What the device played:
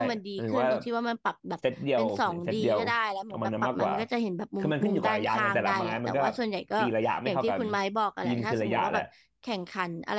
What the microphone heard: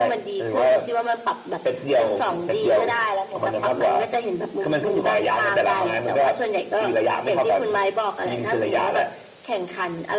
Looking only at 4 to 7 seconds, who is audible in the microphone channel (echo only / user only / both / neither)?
echo only